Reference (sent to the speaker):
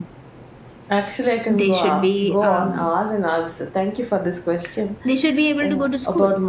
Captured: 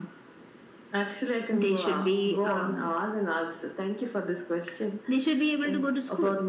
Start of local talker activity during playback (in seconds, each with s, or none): none